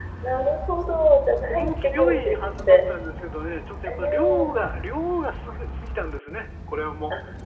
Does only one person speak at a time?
No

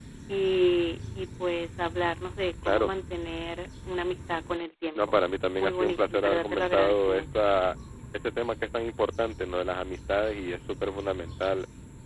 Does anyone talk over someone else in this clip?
Yes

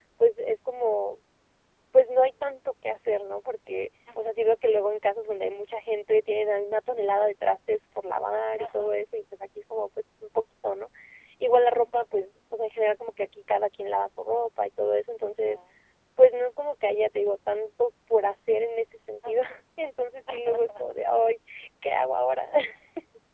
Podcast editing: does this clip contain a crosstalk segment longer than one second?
No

